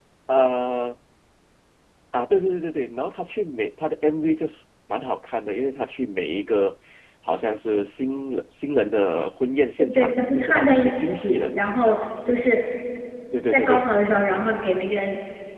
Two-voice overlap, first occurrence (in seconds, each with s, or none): 9.9 s